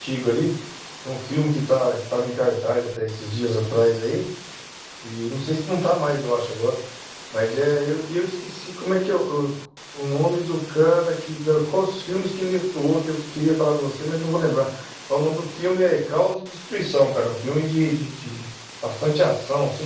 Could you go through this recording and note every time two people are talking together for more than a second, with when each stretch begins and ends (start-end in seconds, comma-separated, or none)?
none